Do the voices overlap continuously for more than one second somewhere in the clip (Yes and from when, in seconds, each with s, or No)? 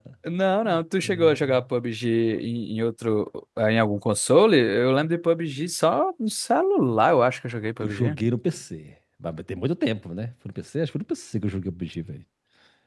No